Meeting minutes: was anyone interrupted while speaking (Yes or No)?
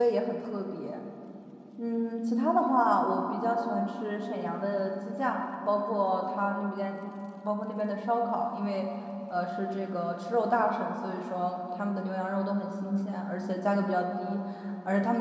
No